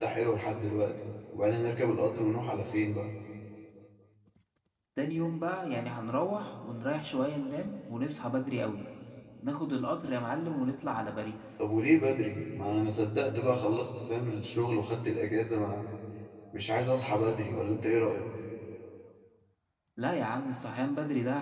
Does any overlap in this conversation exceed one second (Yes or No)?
No